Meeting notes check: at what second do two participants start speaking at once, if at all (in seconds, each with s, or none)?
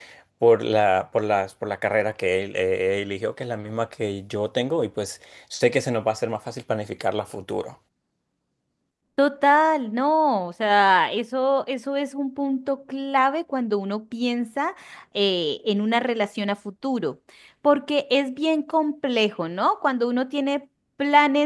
none